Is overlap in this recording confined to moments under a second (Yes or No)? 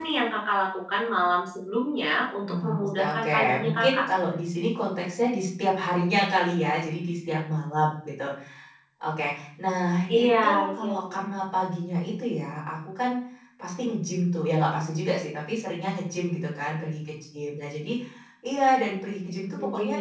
No